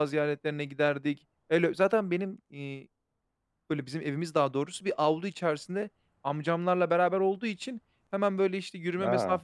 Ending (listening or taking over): listening